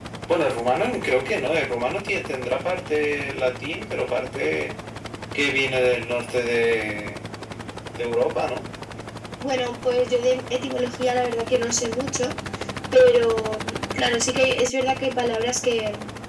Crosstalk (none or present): none